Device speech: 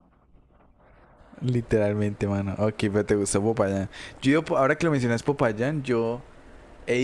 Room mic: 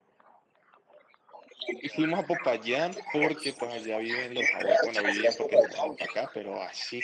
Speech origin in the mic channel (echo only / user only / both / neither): both